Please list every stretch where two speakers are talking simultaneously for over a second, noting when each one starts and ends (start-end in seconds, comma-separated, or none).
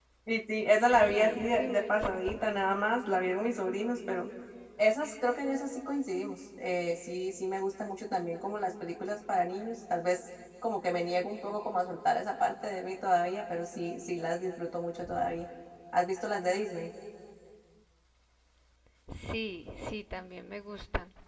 1.1-2.5